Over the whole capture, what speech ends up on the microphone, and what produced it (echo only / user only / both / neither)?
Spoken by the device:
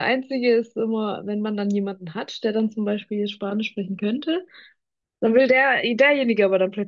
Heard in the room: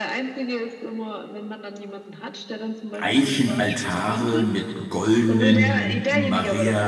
both